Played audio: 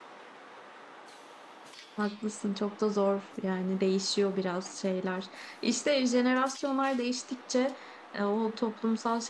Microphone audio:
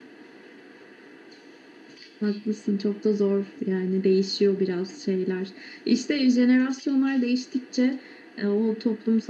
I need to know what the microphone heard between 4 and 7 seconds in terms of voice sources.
echo only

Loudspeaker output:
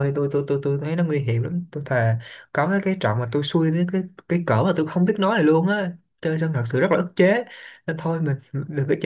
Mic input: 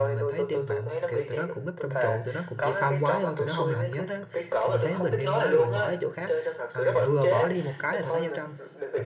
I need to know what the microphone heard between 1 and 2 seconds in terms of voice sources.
both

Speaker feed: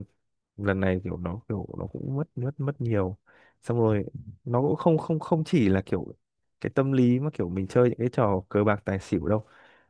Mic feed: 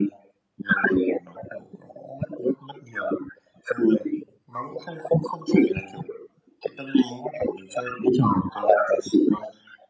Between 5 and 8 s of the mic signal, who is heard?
echo only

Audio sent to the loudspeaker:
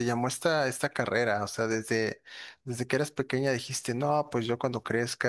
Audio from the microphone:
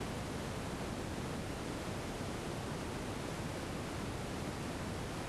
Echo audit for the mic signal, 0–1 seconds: neither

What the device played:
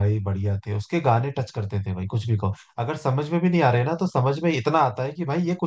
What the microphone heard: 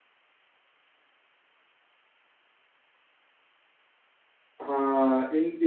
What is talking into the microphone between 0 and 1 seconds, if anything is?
neither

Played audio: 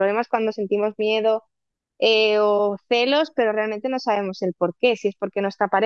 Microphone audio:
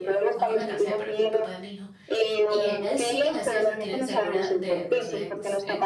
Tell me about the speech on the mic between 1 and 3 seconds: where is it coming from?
both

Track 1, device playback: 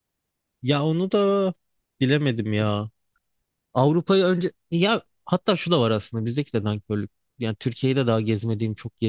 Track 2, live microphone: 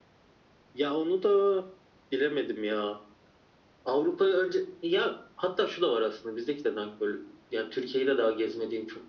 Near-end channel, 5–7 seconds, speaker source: echo only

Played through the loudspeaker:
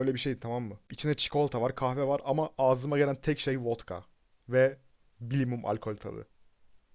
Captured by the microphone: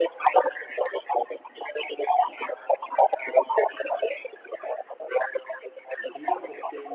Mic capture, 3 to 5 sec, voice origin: echo only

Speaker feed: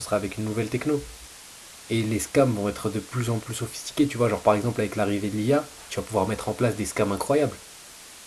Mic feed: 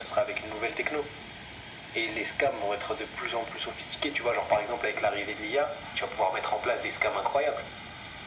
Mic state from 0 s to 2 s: echo only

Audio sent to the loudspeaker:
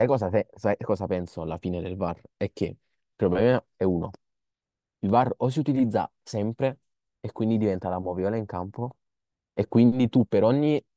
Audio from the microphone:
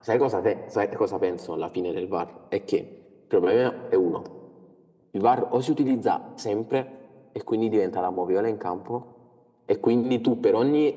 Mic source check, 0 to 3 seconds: echo only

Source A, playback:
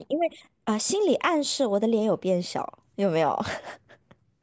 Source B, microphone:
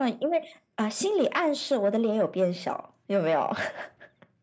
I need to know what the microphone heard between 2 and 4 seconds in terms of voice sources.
echo only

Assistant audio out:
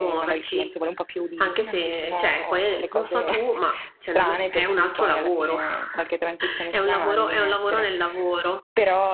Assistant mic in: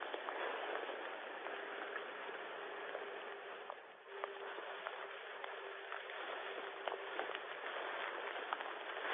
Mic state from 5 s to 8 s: neither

